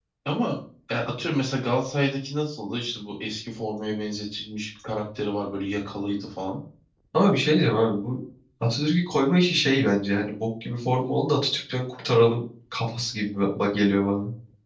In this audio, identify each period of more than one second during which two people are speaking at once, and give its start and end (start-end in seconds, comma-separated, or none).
none